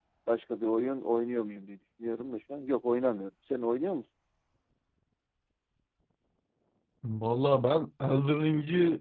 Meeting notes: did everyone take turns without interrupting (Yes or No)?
Yes